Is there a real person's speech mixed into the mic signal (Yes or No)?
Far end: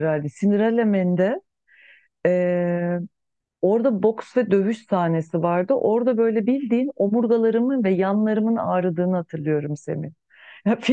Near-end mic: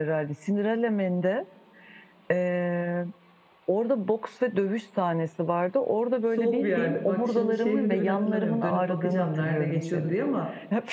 Yes